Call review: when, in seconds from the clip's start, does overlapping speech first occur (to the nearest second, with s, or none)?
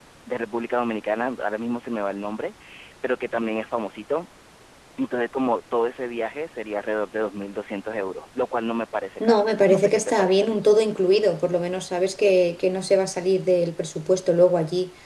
9 s